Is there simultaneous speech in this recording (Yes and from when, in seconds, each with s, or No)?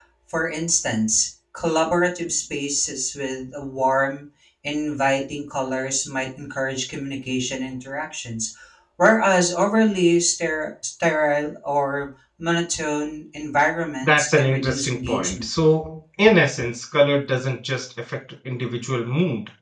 Yes, from 14.0 s